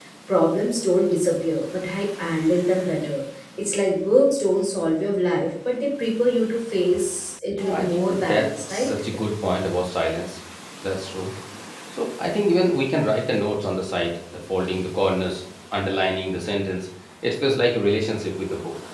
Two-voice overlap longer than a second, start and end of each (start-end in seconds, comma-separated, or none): 7.5-8.9